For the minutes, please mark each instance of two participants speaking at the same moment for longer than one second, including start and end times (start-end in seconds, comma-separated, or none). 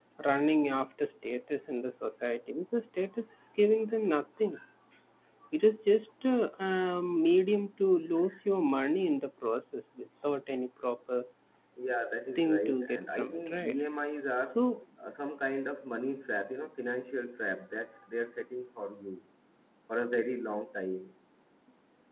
12.4-13.8